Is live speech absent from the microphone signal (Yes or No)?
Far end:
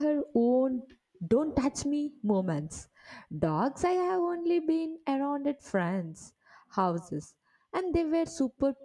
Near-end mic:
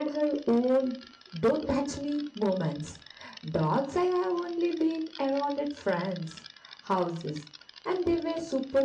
Yes